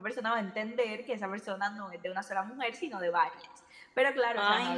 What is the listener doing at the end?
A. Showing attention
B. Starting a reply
A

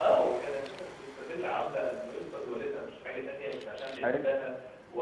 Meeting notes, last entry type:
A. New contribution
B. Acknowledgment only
B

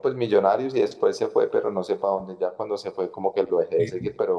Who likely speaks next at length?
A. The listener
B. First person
B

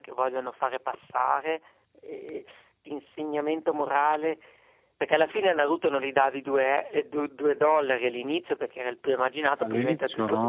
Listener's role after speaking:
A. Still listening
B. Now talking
B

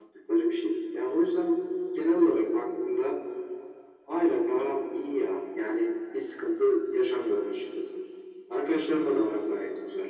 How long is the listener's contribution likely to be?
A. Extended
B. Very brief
B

